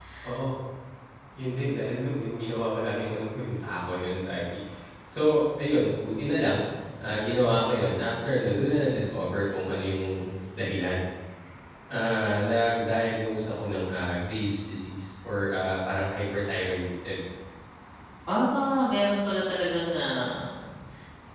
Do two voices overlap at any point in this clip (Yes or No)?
No